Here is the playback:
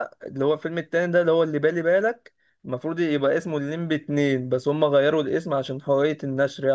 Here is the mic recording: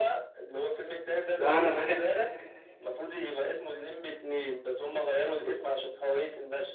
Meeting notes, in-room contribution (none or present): present